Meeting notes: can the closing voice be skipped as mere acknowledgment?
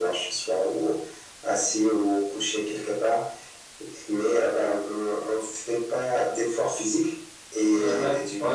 Yes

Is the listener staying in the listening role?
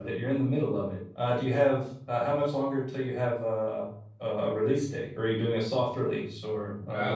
No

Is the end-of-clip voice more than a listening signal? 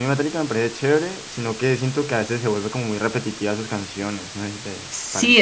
Yes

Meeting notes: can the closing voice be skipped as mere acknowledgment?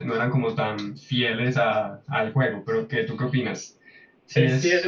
No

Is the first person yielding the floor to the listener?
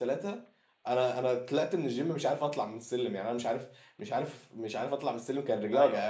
Yes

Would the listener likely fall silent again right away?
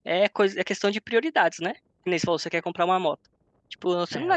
Yes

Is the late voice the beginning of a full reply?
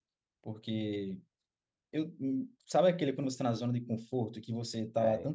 No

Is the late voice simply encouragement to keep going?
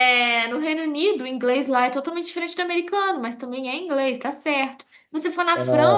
Yes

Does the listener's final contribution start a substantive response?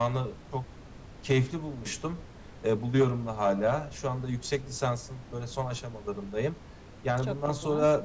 No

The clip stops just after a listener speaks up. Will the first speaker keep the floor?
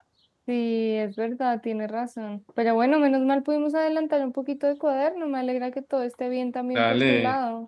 No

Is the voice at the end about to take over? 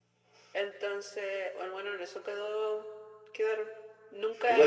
Yes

